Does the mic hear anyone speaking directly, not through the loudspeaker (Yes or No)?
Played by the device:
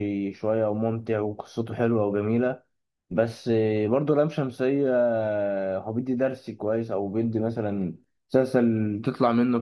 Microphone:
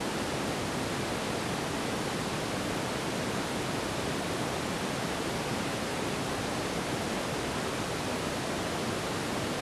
No